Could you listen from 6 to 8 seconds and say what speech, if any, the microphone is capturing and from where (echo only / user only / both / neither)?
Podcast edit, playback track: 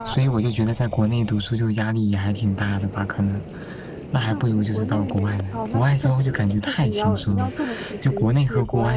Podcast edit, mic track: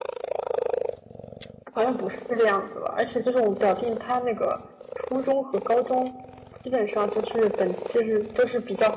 user only